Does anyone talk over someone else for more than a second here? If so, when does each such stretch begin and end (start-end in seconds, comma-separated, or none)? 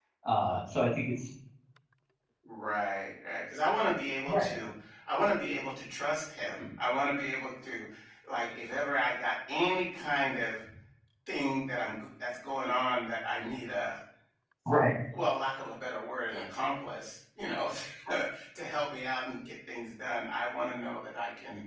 none